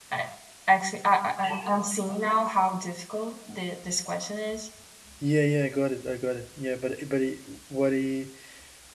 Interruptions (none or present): none